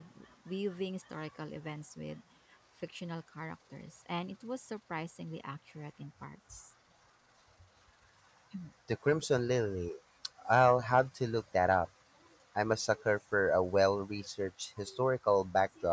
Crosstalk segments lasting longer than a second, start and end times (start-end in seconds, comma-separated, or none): none